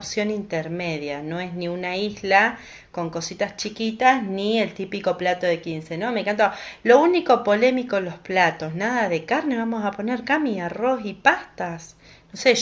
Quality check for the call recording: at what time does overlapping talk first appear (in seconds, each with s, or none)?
none